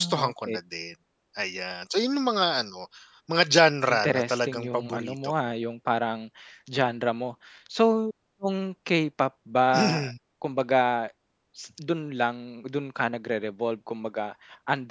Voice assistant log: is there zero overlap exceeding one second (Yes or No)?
No